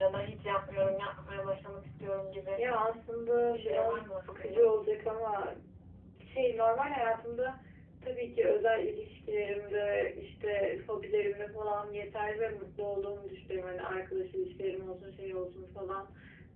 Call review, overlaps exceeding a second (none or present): present